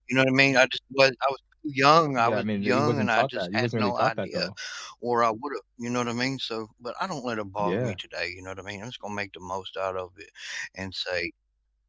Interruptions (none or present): present